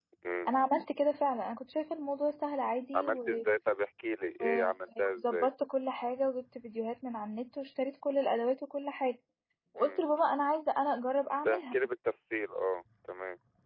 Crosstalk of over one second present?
No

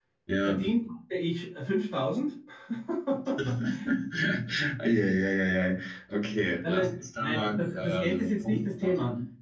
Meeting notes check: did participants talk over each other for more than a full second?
Yes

